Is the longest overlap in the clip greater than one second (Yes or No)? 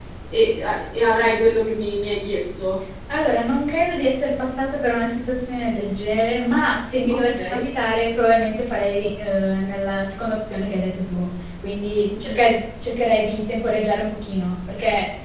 No